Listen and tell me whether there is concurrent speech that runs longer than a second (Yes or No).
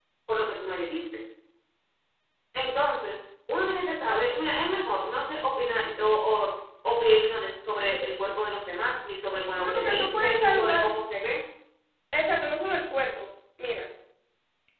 Yes